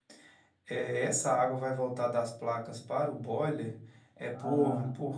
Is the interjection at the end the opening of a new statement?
No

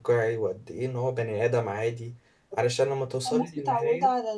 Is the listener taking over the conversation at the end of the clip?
Yes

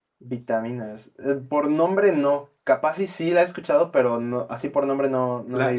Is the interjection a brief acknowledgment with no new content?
No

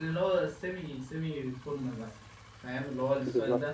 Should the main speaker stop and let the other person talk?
Yes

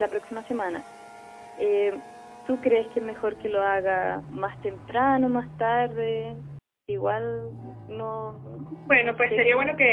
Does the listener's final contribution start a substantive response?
Yes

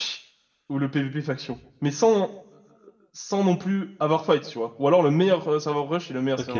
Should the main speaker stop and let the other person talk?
Yes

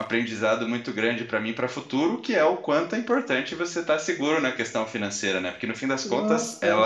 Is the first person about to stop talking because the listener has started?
No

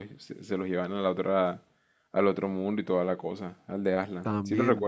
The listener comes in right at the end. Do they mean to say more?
Yes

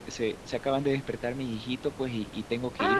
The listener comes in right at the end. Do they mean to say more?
No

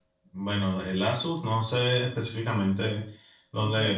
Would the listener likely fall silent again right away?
Yes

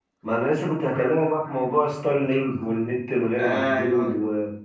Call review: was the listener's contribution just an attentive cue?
Yes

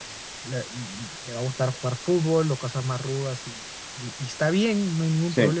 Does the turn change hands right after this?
No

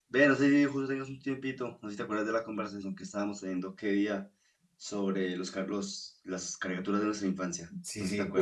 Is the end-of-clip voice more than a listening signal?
Yes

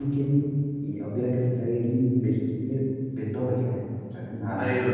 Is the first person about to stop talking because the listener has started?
Yes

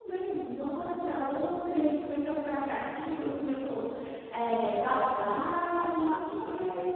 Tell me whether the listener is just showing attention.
No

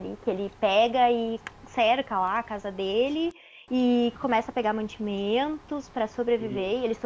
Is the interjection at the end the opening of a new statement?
No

